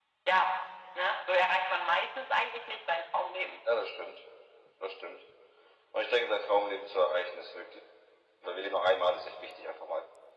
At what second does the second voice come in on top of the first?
none

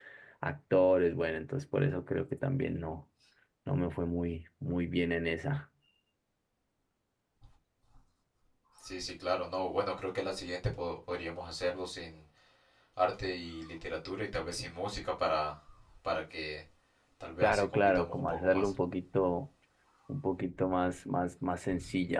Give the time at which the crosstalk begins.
17.4 s

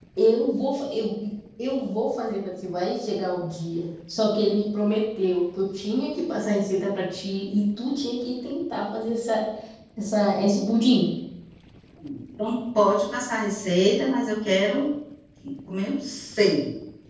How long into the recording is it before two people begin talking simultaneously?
none

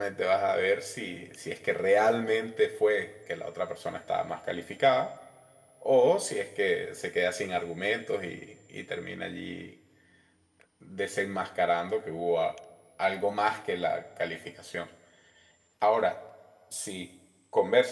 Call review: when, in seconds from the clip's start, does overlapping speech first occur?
none

